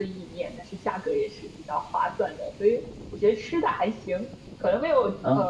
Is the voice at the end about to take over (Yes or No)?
No